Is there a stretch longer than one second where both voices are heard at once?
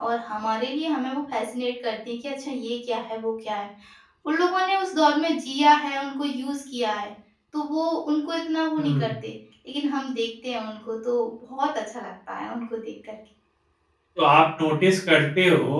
No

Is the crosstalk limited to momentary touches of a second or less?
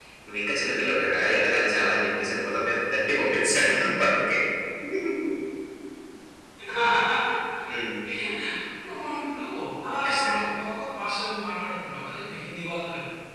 Yes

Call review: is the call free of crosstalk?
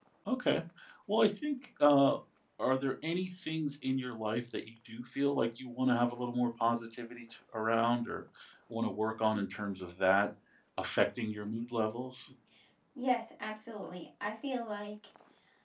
Yes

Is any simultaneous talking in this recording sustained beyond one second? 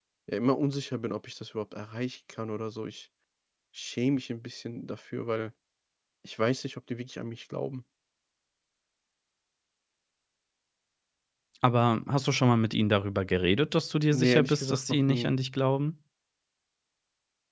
Yes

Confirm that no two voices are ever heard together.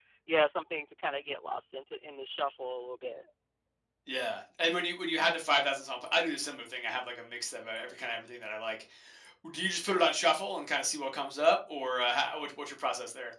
Yes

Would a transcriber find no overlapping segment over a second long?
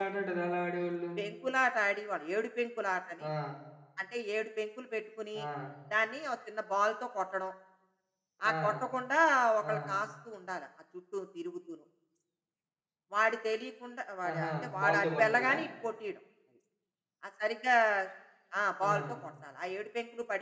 No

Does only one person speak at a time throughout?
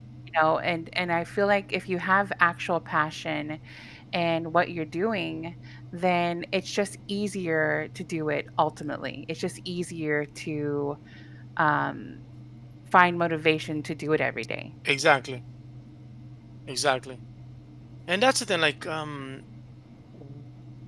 Yes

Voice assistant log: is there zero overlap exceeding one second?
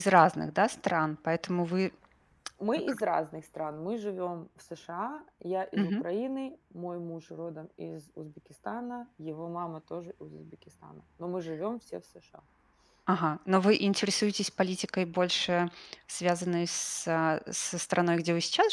Yes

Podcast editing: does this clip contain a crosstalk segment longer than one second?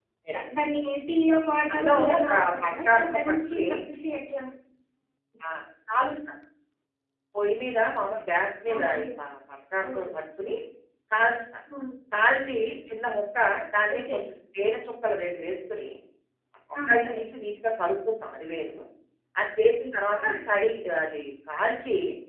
Yes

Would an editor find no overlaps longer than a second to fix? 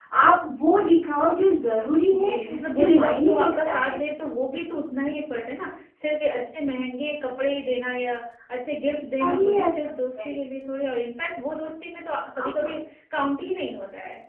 No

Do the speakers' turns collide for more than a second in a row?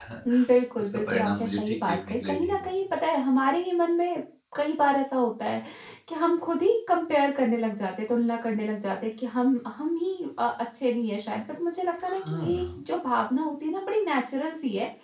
Yes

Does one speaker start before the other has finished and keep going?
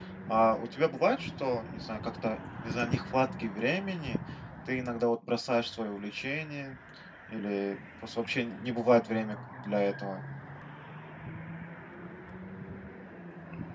No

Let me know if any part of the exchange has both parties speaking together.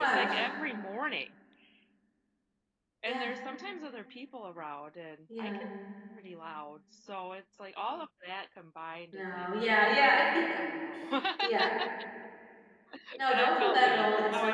Yes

